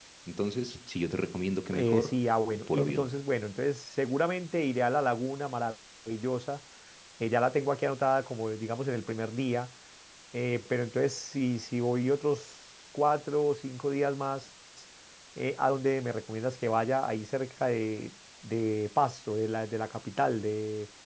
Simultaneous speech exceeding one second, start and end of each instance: none

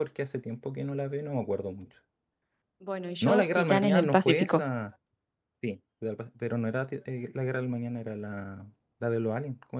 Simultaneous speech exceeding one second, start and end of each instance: 3.2-4.6

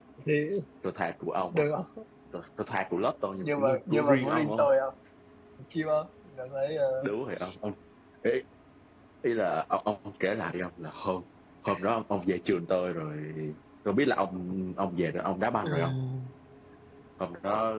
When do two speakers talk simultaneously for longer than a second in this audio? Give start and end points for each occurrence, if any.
3.4-4.7

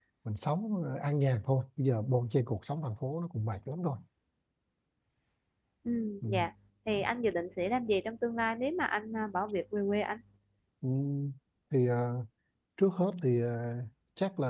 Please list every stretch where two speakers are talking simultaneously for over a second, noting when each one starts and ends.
none

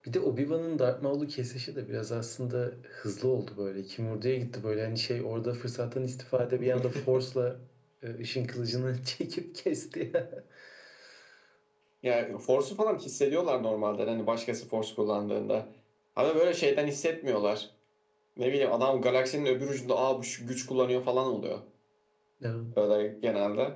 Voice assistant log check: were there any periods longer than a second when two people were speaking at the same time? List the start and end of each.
none

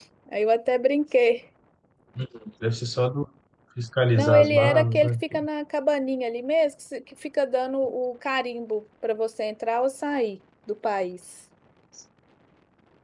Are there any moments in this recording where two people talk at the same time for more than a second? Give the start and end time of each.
4.2-5.4

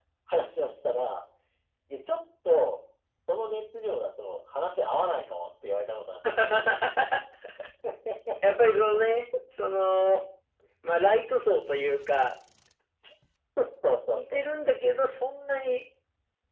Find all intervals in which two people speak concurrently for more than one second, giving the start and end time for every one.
none

